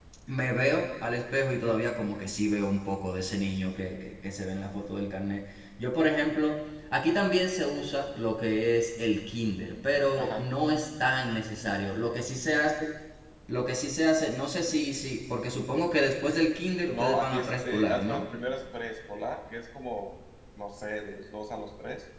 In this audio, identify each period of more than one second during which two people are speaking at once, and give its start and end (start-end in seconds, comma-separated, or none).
16.9-18.2